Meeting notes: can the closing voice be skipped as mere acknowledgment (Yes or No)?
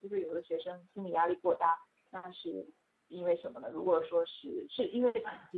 No